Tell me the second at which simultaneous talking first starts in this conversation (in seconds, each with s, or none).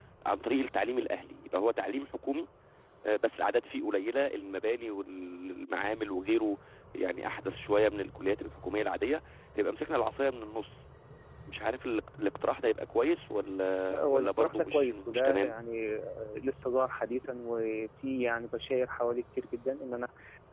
13.9 s